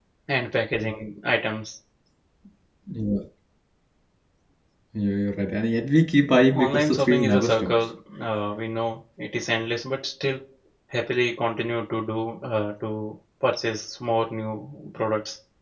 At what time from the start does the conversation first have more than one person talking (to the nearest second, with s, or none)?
7 s